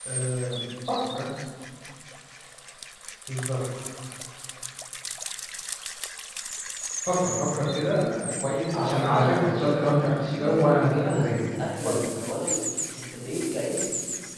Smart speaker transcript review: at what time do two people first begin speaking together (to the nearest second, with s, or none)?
9 s